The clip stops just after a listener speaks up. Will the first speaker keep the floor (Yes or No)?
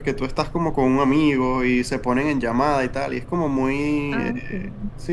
Yes